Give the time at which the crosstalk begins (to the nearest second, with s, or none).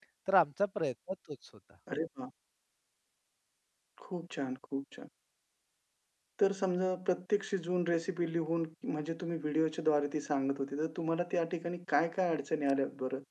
none